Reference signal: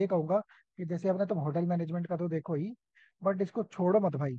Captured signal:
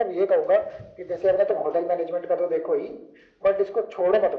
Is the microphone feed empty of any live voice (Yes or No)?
Yes